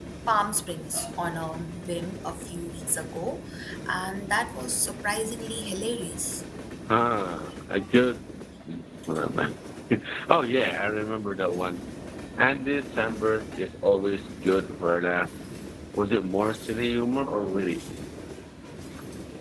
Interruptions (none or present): none